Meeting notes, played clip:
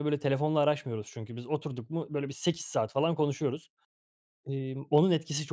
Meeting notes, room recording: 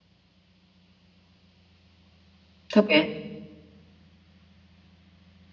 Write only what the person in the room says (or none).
Tabii.